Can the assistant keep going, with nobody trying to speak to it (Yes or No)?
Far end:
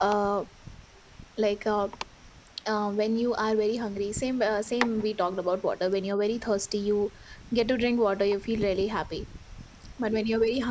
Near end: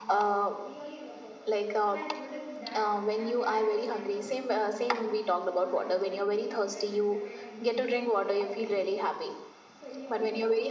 No